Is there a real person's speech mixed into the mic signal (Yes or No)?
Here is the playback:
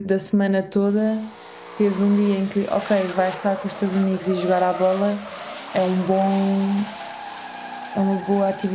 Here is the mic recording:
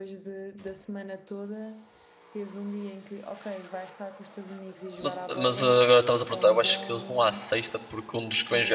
Yes